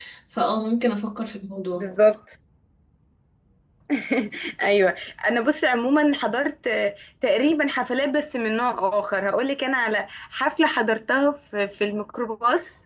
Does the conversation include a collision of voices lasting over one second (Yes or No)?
No